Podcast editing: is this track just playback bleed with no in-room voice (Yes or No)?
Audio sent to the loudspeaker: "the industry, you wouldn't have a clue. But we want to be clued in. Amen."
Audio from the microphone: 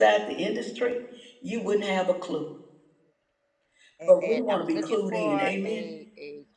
No